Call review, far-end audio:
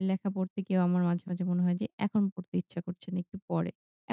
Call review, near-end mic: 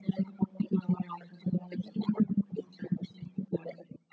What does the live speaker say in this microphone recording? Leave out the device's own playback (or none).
none